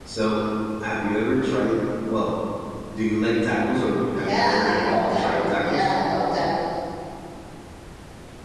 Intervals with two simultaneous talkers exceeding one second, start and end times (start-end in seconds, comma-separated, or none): 4.1-5.9